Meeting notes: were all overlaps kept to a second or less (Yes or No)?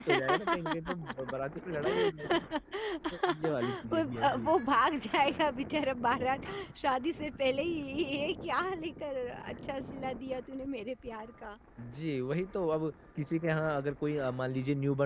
No